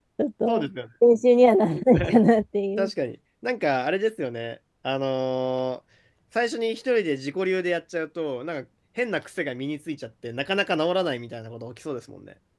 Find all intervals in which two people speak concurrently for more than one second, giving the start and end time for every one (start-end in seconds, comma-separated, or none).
none